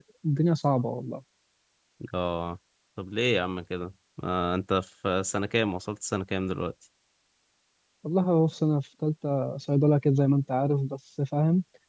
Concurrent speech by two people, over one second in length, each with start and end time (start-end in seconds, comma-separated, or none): none